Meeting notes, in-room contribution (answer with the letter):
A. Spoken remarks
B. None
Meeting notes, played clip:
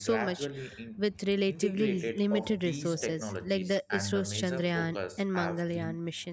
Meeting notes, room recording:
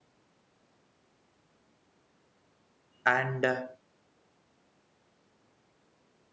A